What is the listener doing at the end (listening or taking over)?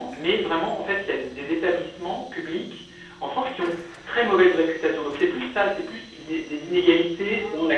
listening